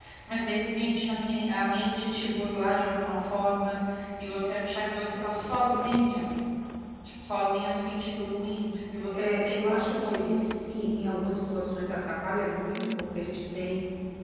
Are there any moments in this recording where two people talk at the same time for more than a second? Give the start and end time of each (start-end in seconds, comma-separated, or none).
9.1-10.3